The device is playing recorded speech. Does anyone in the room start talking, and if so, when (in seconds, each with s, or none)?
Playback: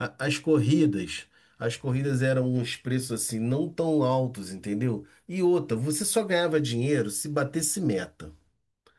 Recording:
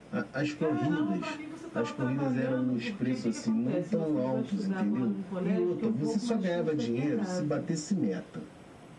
0.6 s